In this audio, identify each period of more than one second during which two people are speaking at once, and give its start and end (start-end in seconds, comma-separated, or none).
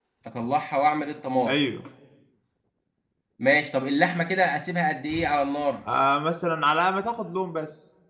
none